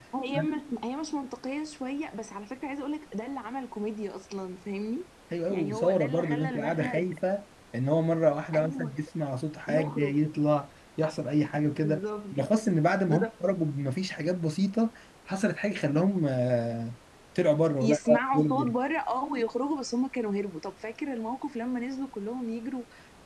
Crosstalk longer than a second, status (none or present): present